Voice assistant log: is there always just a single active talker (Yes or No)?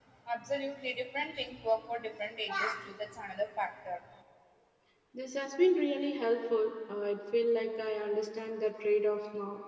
Yes